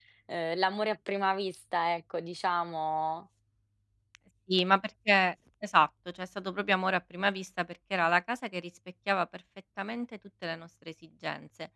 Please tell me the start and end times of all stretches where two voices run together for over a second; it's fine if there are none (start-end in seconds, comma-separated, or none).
none